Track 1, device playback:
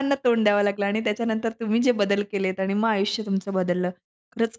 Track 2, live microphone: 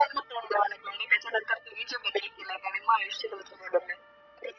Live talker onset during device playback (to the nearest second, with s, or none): none